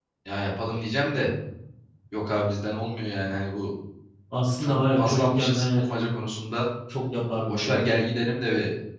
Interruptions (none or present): present